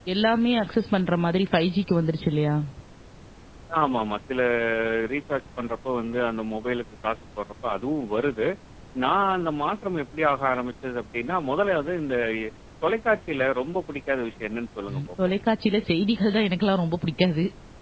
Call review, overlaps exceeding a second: none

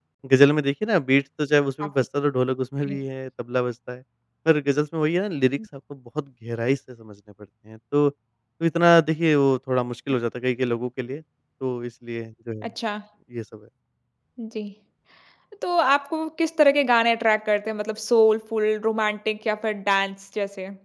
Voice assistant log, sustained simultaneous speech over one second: none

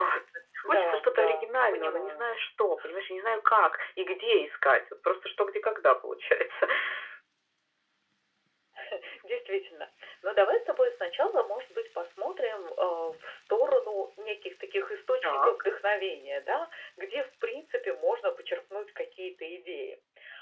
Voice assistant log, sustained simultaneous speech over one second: present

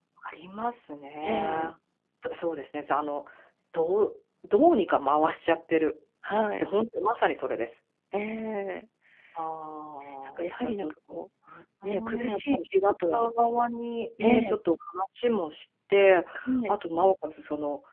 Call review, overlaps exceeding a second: present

